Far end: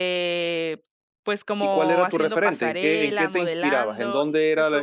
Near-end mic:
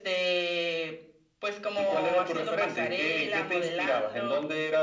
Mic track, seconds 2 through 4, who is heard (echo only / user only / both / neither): echo only